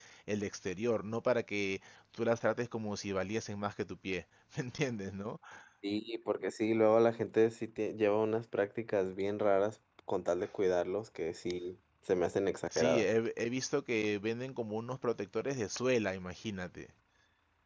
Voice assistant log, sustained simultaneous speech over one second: none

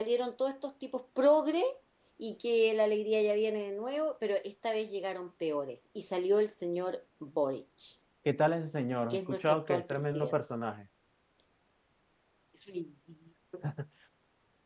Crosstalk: present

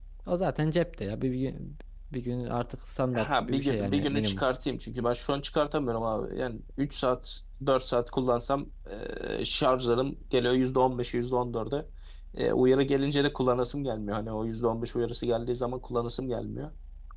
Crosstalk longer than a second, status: present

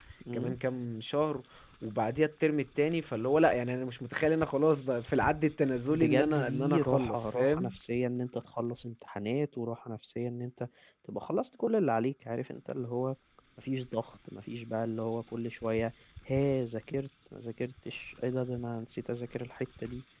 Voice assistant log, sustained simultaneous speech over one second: present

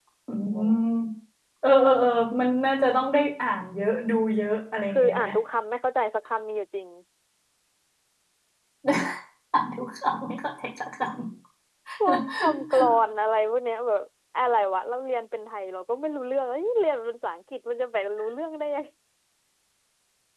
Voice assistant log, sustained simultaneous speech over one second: none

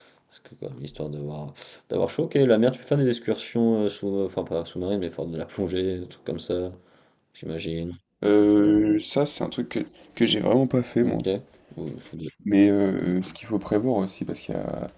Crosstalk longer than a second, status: none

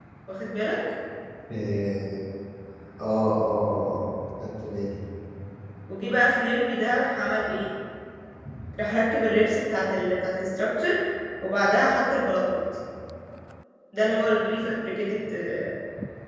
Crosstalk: none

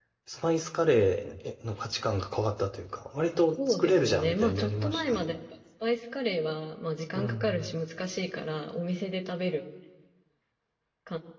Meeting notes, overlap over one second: present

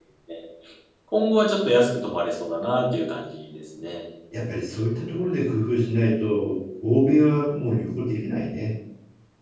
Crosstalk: none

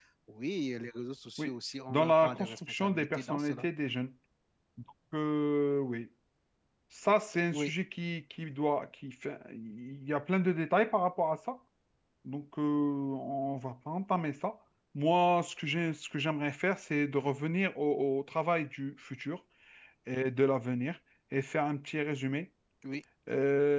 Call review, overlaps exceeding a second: present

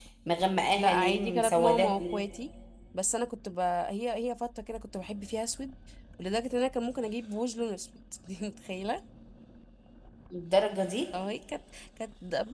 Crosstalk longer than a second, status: present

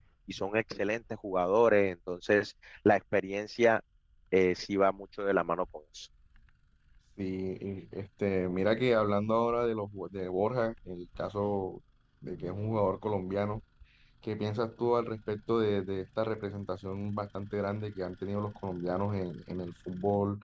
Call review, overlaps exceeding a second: none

